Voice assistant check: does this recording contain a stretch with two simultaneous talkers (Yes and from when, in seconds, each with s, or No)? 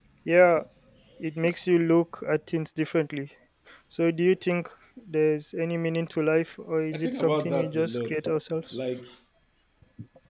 Yes, from 6.9 s